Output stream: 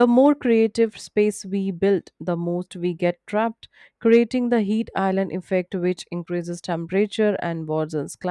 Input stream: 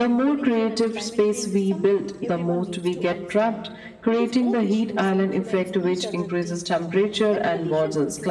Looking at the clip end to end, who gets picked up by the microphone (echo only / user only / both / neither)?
both